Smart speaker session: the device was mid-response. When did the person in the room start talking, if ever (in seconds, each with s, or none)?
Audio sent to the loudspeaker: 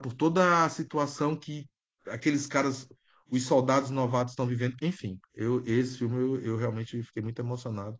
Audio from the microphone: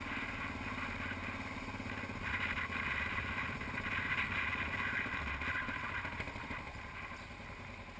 none